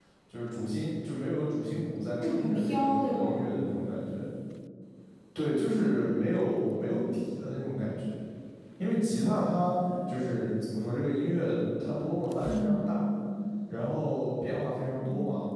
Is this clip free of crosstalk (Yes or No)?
No